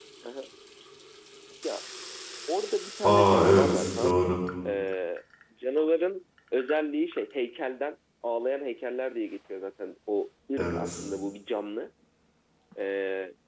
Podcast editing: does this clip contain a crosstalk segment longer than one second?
Yes, from 3.0 s

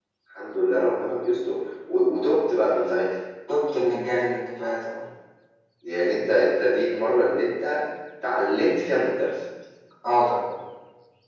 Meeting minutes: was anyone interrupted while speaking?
No

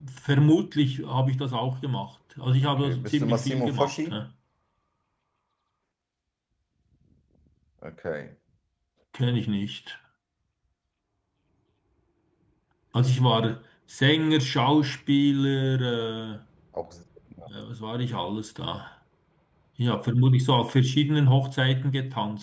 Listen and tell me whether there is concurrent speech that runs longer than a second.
Yes, from 2.6 s

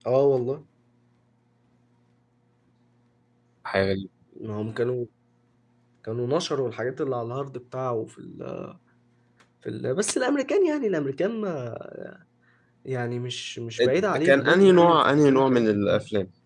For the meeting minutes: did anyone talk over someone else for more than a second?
Yes, from 13.8 s

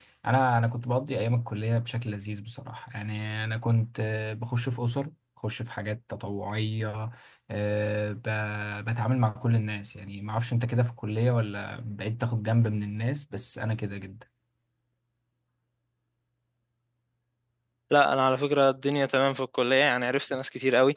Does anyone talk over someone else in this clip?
No

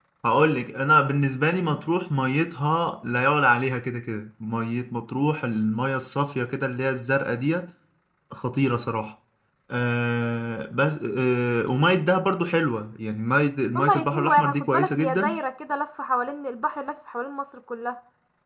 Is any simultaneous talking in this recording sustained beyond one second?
Yes, from 13.8 s

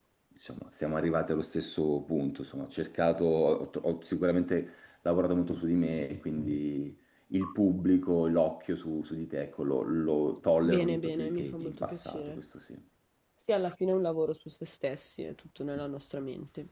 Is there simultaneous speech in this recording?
Yes, from 10.6 s

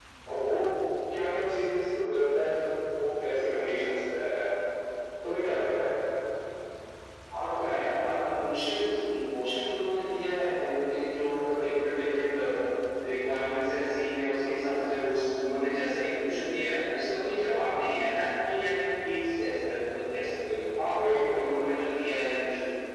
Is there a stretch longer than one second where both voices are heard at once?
No

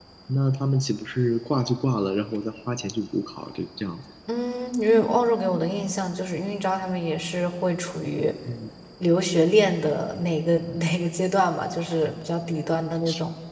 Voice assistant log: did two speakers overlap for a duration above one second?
No

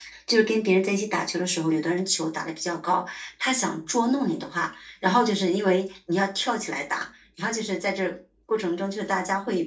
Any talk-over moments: No

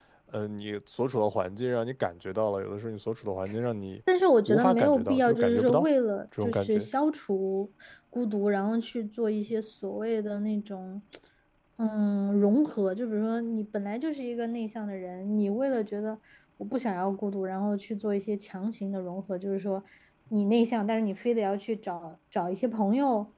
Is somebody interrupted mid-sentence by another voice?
Yes, from 4.5 s

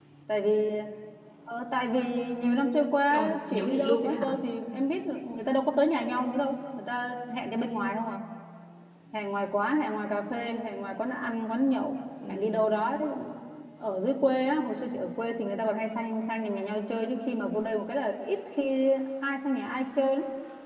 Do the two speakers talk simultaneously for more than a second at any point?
Yes, from 3.1 s

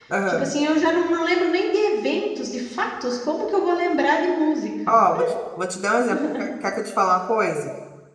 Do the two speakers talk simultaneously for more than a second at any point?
No

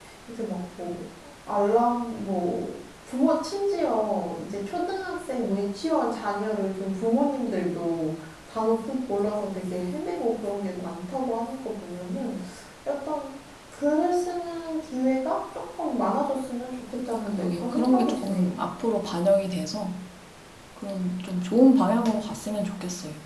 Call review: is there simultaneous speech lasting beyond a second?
Yes, from 17.3 s

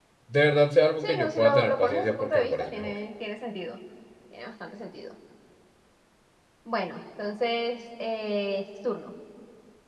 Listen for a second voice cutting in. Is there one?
Yes, from 1.0 s

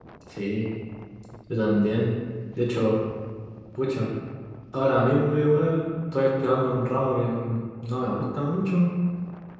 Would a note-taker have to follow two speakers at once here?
No

